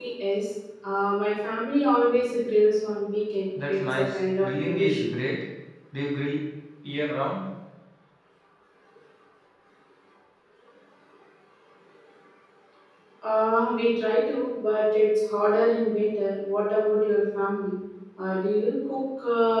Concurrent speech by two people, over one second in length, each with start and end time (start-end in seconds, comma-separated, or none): 3.7-5.1